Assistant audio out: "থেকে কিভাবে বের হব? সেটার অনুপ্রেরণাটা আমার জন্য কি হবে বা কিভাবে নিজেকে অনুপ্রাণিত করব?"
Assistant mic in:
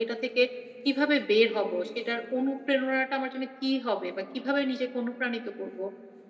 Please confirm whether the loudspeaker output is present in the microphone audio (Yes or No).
Yes